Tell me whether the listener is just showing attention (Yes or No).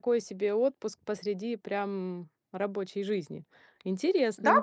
No